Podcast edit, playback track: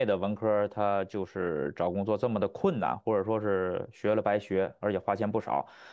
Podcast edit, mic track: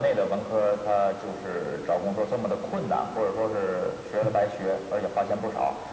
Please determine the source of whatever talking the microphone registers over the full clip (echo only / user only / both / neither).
both